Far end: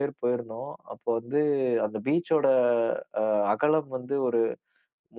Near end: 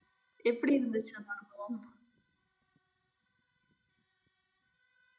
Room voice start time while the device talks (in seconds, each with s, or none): 0.5 s